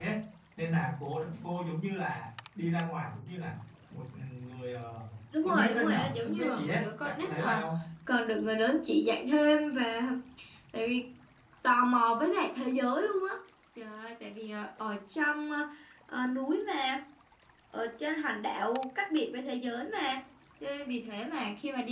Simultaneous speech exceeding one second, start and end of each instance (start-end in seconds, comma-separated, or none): 5.4-7.6